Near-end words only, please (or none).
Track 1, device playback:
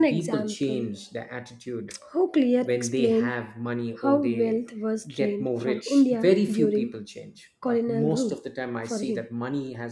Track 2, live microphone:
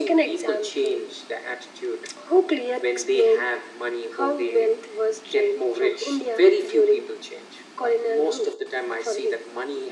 none